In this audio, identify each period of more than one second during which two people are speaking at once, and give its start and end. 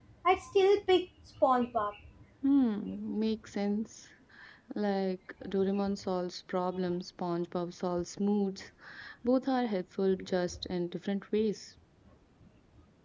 none

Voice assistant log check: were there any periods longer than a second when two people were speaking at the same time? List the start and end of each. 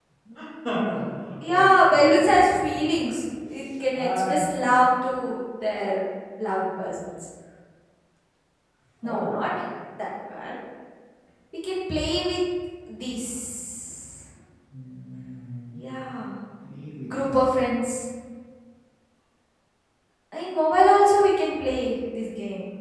1.4-2.9

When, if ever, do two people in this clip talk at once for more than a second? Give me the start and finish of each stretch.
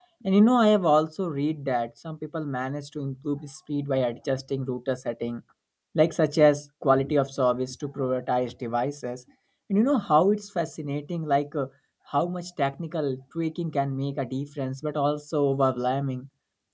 none

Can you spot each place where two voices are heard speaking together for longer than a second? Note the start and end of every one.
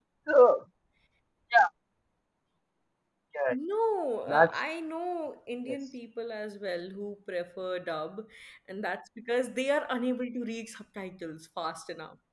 none

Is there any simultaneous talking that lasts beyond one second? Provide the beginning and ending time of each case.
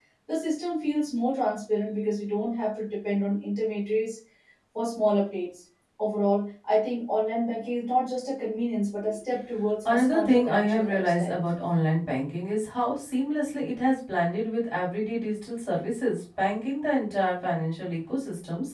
9.8-11.3

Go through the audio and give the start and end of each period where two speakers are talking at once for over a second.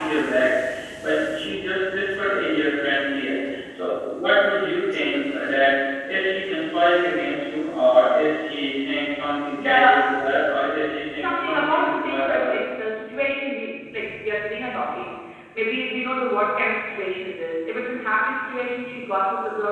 11.1-12.5

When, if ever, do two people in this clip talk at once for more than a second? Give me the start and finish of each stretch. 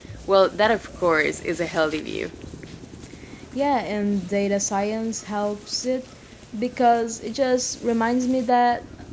none

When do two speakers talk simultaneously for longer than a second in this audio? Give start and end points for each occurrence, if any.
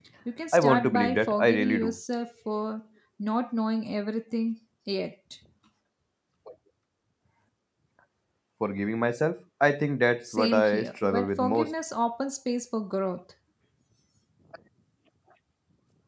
0.5-2.0, 10.3-11.7

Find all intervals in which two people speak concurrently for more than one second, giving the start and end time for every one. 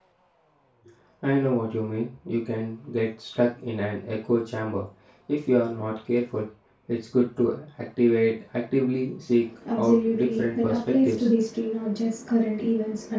9.7-11.3

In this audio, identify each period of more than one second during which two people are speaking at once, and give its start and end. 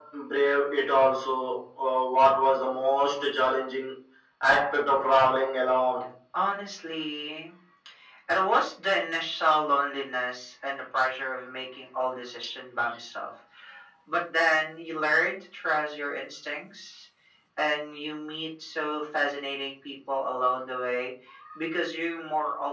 none

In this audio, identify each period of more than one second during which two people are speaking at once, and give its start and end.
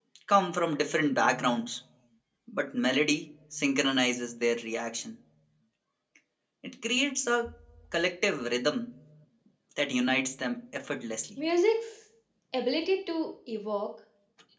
none

